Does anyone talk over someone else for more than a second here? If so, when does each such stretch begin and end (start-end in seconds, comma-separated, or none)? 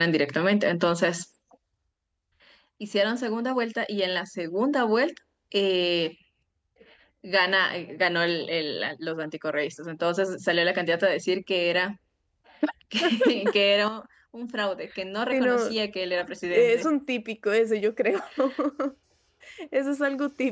none